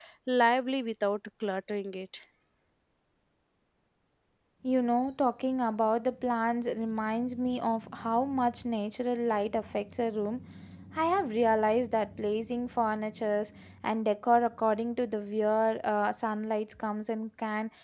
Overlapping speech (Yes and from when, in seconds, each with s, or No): No